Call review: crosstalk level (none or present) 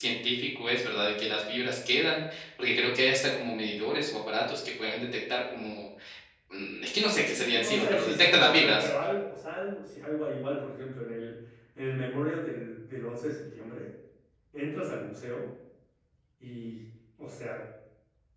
present